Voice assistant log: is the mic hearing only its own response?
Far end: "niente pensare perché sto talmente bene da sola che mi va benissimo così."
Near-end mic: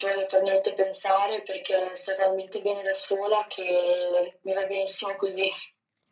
Yes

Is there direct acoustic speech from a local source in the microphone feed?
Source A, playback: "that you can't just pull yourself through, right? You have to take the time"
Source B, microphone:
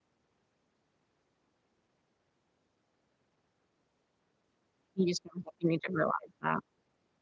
Yes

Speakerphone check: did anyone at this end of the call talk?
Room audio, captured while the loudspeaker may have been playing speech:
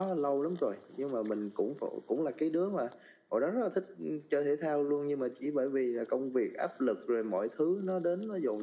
No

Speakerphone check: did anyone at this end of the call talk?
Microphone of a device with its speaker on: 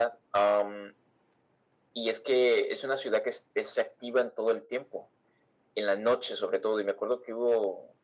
No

